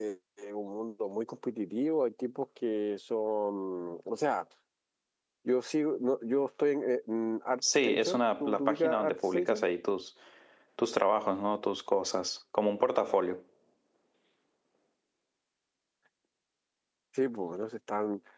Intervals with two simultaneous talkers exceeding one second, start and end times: 7.8-9.6

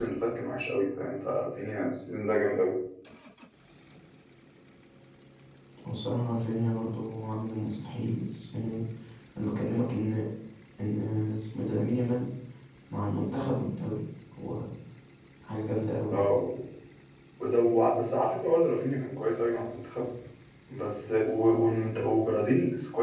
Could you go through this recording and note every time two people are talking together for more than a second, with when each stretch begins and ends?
none

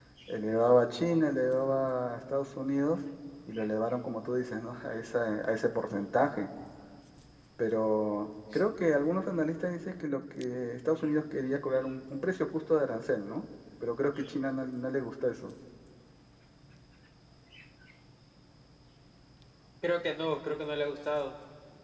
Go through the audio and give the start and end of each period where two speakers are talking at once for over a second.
none

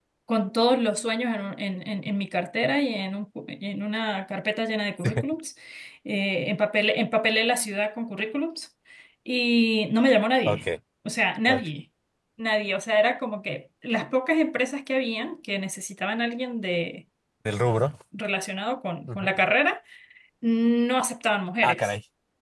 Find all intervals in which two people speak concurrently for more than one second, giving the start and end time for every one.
none

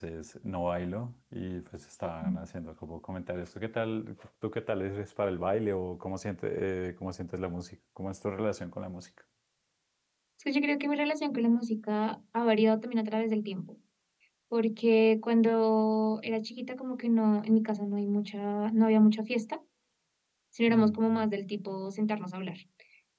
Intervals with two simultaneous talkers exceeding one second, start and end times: none

